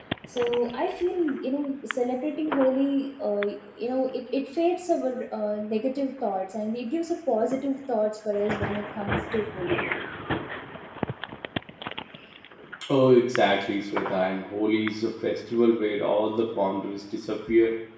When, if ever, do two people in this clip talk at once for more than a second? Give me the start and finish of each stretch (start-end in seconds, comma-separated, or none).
none